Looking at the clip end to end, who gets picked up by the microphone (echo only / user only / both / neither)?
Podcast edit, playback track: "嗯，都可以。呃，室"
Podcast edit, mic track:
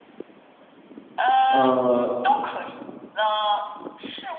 both